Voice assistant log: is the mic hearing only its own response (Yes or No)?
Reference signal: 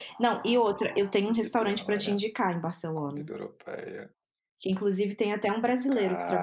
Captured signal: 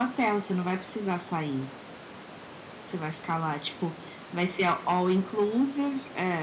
No